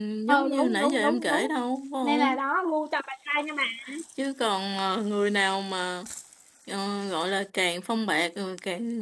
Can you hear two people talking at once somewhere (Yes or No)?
Yes